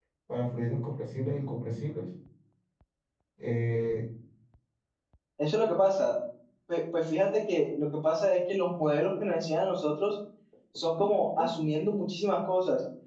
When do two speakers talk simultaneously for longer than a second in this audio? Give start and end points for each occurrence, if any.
none

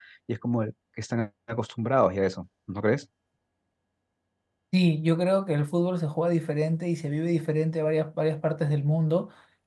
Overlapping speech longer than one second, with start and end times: none

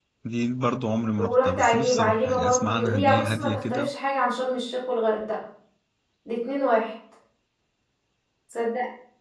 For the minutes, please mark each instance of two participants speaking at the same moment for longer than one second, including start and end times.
1.2-3.9

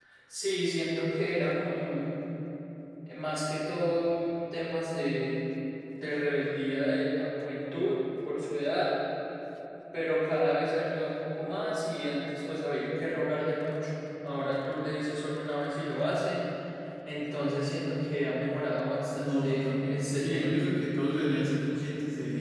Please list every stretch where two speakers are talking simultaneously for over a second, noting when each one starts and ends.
19.1-20.5

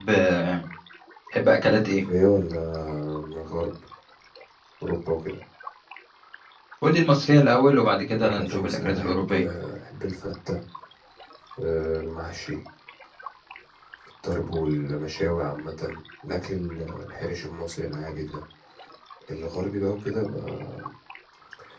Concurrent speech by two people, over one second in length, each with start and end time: 8.2-9.4

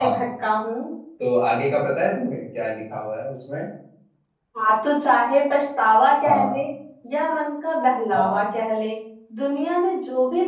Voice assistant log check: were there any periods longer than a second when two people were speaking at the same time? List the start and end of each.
none

